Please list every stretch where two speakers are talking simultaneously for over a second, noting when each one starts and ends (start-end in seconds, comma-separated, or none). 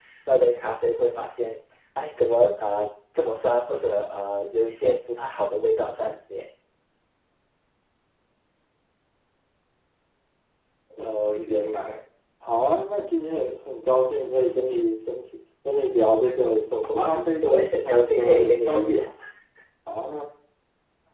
16.8-19.0